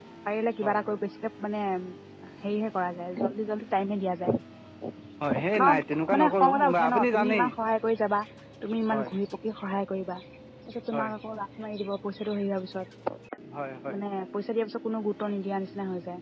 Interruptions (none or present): present